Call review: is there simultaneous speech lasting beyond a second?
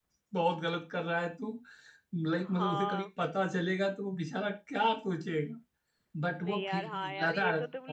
Yes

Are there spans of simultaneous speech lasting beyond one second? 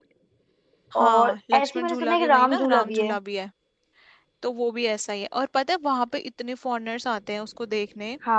Yes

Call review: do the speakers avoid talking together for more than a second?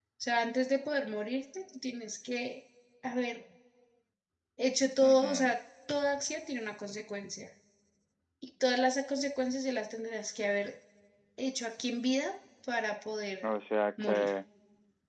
Yes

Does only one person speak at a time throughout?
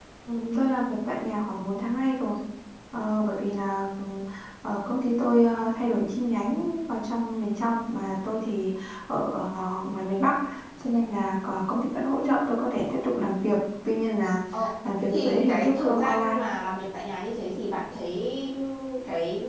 No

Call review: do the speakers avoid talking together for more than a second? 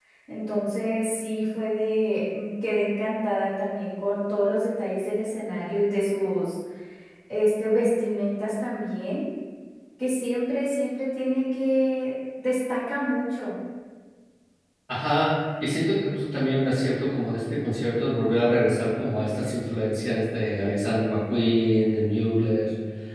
Yes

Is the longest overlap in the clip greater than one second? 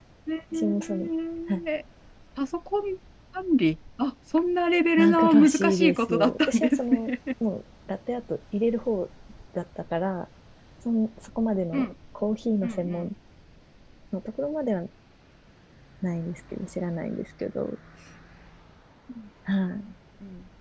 Yes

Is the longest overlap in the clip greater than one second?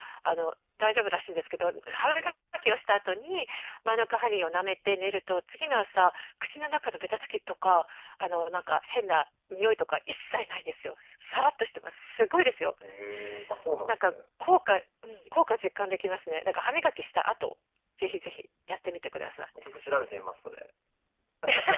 No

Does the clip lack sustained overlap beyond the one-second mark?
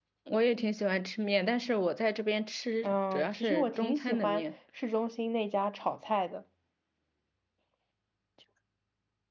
No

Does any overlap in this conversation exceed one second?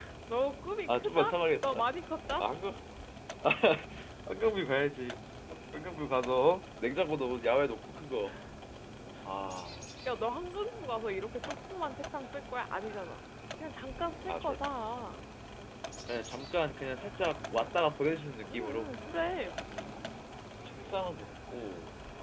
No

